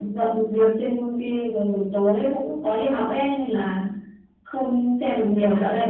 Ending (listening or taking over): listening